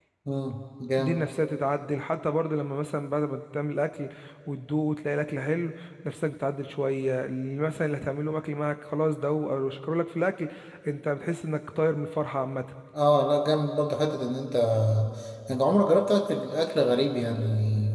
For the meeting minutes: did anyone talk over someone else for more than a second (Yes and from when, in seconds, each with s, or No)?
No